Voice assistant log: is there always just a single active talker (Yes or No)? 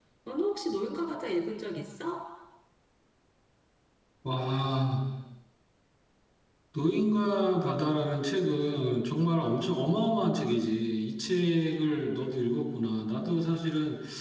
Yes